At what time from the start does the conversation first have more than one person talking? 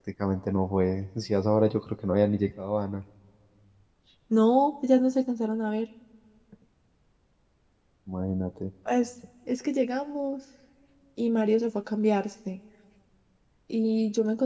none

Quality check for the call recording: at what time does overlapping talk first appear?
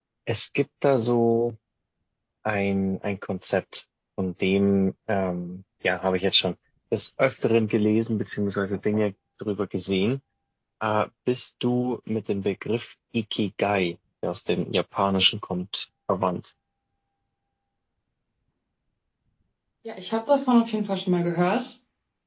none

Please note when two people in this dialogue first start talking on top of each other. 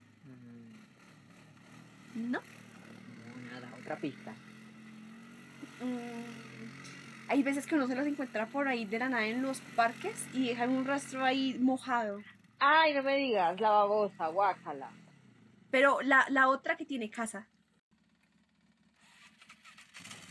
none

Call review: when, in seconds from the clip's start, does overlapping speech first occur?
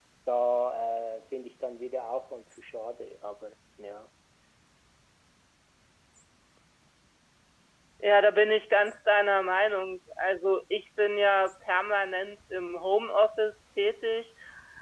none

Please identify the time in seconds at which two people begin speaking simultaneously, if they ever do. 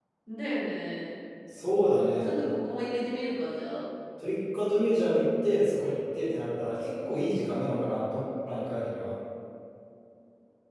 none

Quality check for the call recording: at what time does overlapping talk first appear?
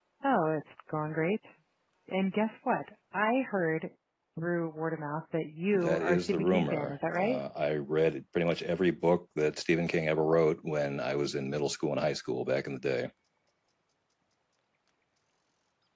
5.7 s

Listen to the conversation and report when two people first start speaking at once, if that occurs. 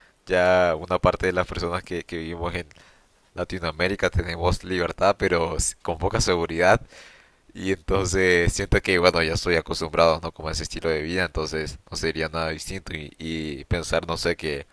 none

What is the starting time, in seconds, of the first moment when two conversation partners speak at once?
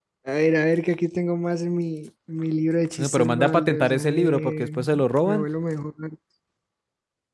3.0 s

